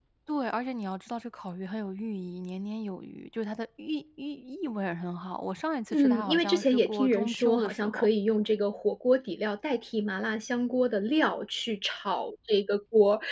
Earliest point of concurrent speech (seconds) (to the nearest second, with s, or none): 6 s